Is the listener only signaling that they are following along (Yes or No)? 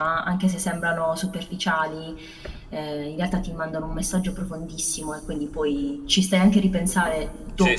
No